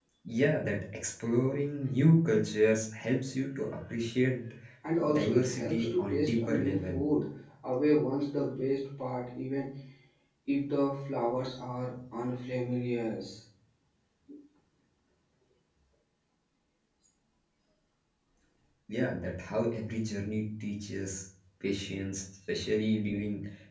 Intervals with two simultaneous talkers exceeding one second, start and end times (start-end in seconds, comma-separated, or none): 5.1-7.0